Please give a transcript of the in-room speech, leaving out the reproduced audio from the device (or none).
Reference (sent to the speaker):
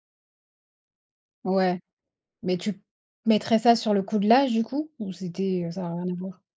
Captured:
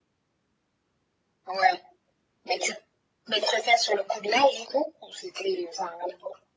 none